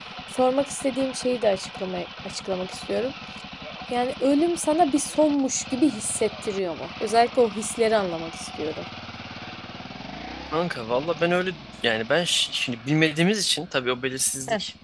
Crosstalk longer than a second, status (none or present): none